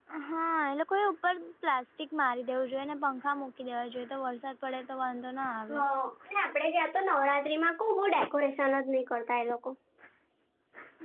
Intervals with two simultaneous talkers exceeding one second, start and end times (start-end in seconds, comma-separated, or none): none